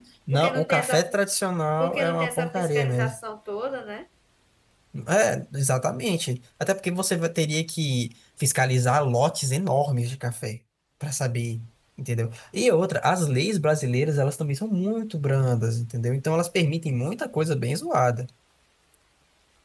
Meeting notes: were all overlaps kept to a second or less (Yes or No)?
No